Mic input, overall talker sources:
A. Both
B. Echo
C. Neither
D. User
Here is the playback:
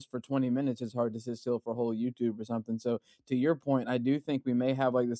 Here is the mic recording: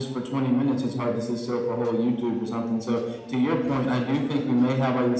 B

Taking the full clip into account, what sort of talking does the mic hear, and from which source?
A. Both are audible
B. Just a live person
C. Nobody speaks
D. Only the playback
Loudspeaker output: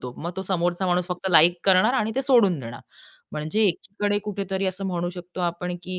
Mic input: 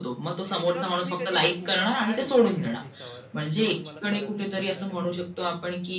A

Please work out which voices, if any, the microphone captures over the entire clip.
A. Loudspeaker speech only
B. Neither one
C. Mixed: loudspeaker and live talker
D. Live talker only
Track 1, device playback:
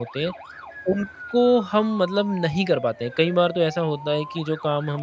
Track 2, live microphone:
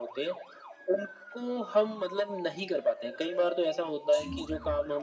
C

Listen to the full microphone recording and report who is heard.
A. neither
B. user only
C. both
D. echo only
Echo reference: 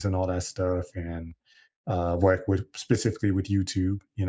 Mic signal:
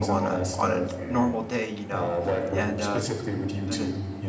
C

